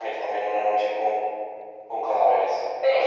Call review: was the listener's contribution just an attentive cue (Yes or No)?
No